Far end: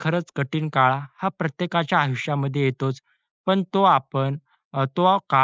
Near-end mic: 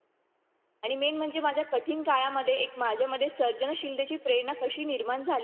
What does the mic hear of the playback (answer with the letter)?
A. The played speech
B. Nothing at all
B